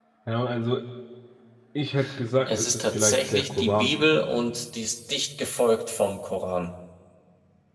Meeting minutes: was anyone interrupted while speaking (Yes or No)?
Yes